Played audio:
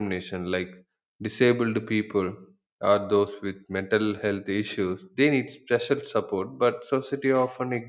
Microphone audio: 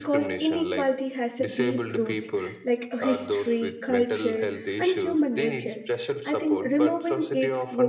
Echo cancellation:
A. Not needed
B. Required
B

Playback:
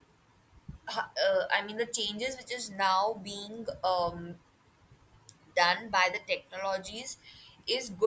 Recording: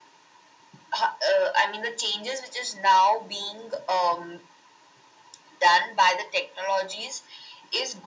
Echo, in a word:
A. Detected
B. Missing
A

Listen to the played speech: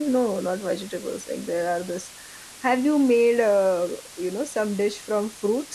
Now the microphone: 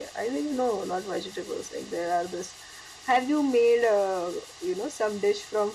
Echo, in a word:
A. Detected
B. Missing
A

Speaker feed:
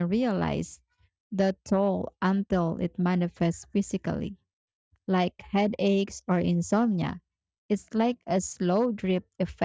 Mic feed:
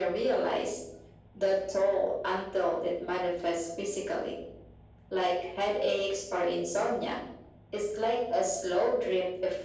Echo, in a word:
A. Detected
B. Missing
A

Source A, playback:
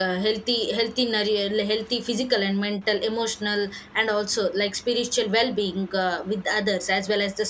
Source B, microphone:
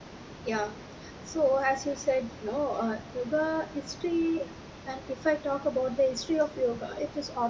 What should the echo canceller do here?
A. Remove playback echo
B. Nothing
B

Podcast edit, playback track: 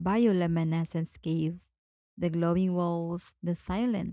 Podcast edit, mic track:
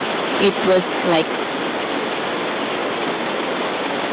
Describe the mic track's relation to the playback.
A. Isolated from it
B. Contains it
A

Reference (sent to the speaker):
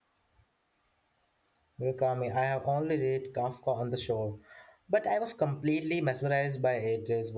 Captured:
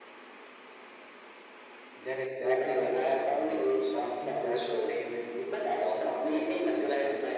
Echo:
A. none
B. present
B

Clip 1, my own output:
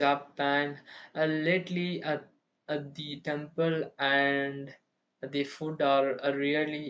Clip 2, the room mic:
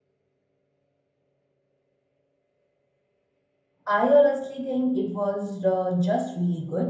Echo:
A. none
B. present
A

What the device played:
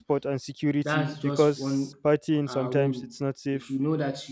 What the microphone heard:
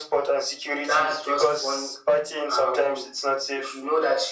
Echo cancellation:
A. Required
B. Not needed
A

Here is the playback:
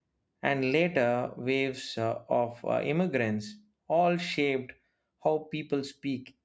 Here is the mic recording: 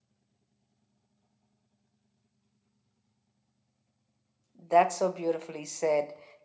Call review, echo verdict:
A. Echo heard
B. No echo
B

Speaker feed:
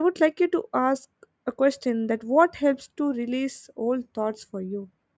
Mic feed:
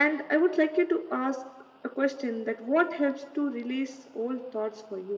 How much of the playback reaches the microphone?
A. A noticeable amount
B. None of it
A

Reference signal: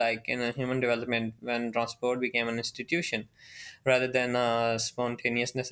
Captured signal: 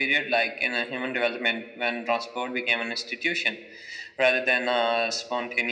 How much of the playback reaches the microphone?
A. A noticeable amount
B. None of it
A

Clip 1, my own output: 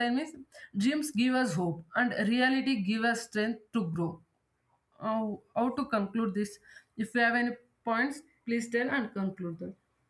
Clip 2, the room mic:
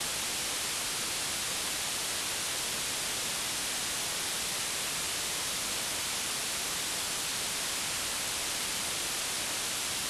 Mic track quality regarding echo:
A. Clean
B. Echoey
A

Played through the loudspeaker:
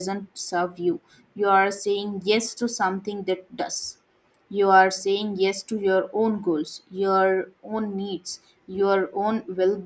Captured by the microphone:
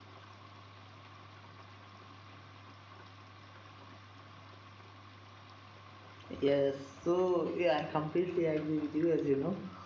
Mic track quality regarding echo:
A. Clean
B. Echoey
A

